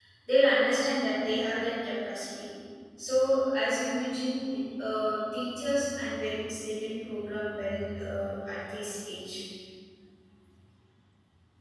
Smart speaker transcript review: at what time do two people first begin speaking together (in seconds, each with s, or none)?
none